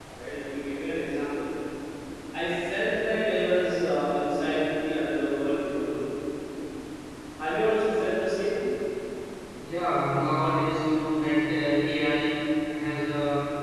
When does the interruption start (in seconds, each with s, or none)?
none